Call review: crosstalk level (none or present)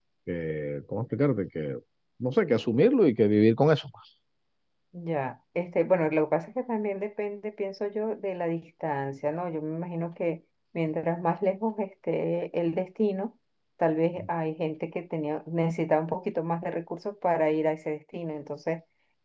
none